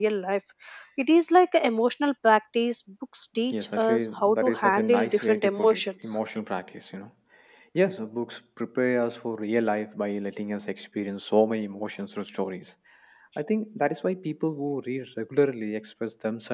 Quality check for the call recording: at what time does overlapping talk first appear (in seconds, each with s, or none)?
3.5 s